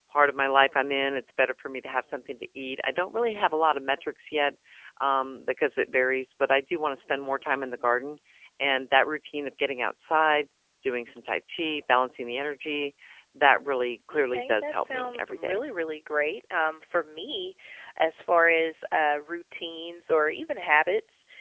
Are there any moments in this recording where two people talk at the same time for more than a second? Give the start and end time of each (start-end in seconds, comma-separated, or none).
14.3-15.6